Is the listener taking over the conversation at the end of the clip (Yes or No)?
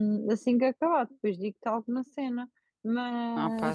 No